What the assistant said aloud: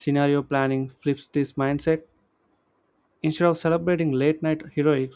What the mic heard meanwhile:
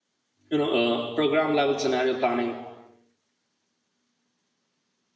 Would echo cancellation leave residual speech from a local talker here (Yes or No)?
Yes